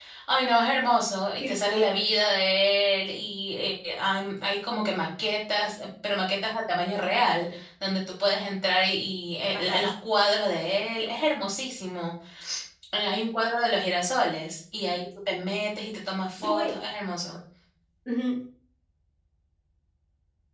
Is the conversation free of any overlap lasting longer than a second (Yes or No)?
Yes